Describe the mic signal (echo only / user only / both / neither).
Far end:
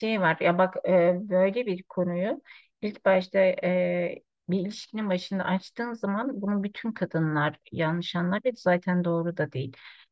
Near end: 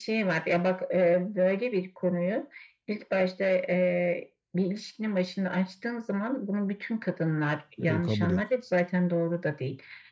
both